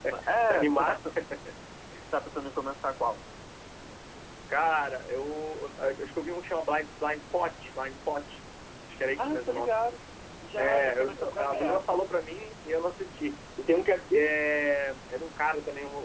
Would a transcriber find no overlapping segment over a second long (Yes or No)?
No